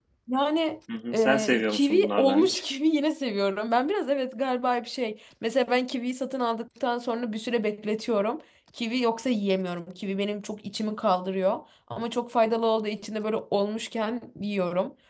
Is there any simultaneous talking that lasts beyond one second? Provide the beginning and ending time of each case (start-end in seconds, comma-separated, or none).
1.1-2.6